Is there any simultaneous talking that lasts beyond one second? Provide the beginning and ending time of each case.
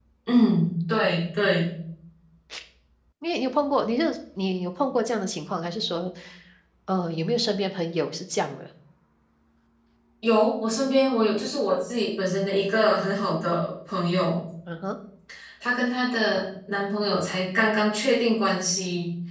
none

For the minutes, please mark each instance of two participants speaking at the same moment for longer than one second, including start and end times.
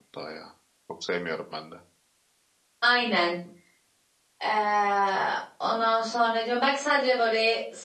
none

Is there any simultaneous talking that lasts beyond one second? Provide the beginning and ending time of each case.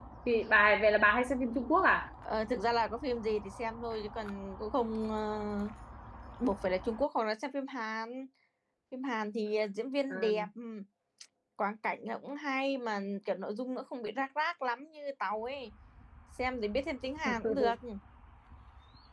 none

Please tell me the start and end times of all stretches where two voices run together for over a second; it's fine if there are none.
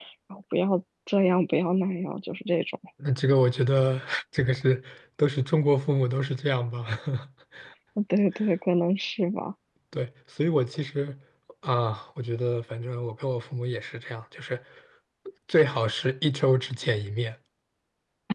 none

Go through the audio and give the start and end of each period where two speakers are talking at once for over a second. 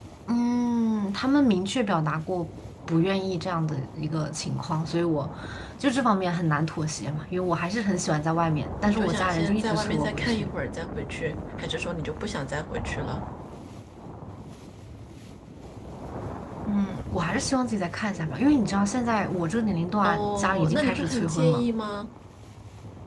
8.9-10.5, 20.0-21.6

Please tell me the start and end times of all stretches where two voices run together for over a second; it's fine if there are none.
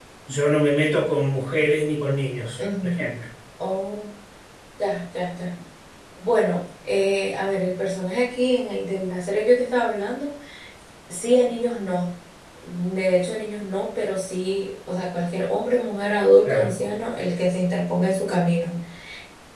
none

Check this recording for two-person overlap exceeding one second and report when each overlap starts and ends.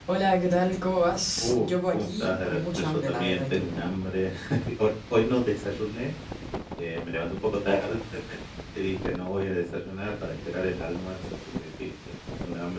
1.4-3.7

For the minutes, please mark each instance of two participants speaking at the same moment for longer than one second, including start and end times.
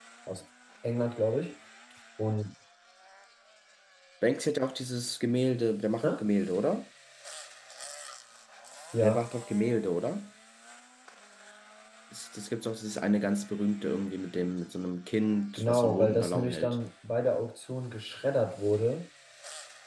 15.6-16.8

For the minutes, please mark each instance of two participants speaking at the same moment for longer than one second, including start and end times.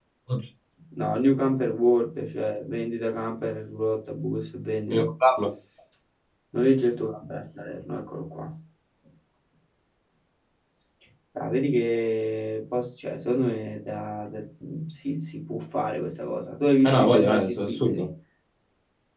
16.8-18.1

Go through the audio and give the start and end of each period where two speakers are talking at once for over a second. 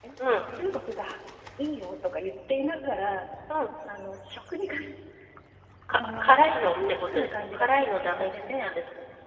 5.9-8.7

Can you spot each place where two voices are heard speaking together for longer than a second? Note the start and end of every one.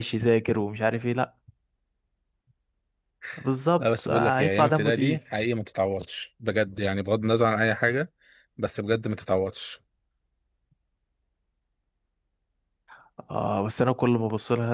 3.8-5.2

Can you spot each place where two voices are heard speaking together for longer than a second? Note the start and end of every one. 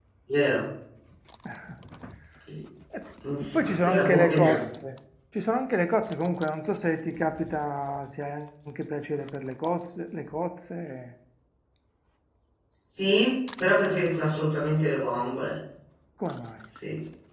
3.4-4.6

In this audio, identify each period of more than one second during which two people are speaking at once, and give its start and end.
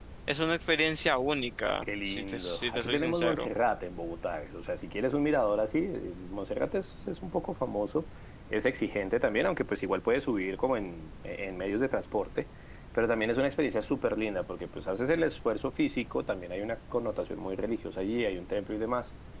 1.8-3.5

